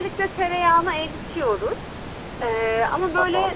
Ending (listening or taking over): listening